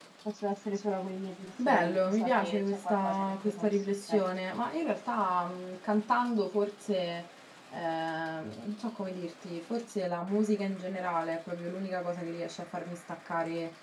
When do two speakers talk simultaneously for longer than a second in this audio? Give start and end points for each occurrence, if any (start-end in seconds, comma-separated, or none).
1.6-4.2